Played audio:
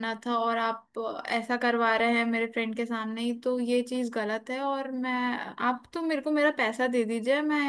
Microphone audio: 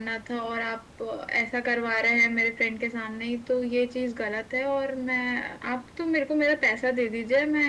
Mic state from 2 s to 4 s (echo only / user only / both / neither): echo only